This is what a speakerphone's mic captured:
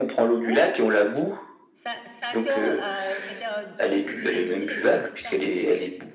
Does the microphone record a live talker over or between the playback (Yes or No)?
Yes